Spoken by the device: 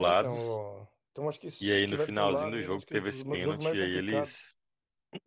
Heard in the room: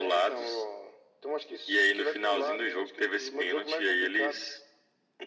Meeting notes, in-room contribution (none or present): none